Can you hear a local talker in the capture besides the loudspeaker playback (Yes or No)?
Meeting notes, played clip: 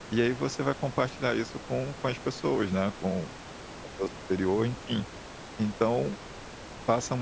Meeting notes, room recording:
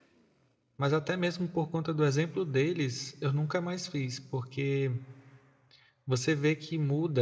Yes